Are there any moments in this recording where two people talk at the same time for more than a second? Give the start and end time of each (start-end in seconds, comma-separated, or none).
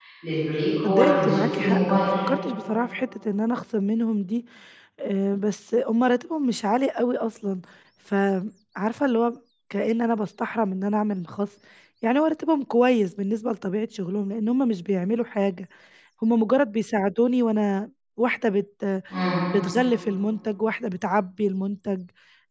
0.8-2.1